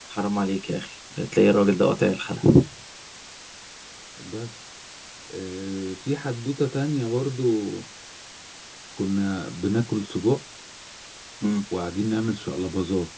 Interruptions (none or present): none